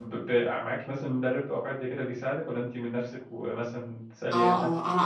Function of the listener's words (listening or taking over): taking over